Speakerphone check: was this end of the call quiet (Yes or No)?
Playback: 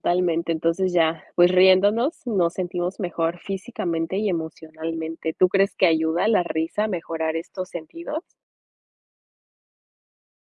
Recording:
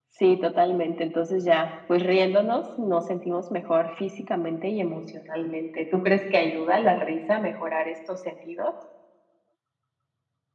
Yes